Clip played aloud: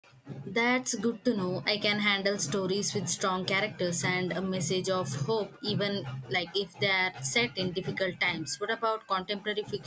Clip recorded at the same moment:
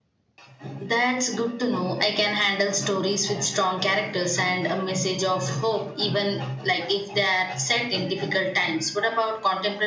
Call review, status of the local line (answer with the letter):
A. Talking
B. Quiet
B